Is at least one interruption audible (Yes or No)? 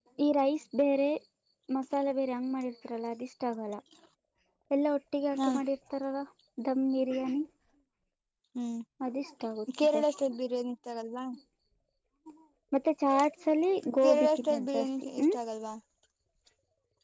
Yes